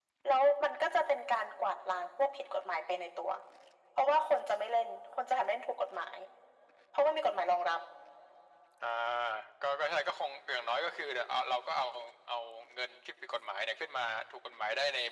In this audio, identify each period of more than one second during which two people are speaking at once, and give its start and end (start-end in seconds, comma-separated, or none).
none